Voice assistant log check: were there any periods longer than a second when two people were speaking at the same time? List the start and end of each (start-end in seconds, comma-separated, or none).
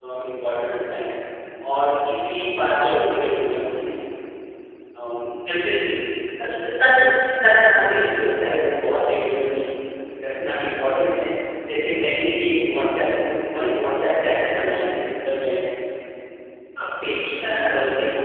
none